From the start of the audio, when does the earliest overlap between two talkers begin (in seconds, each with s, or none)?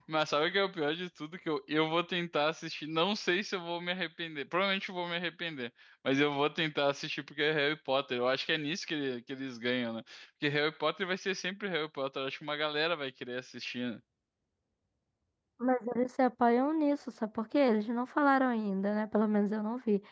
none